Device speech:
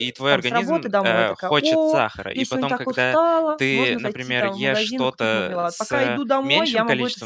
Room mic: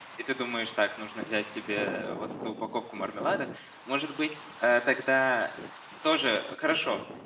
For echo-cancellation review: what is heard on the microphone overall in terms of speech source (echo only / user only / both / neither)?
user only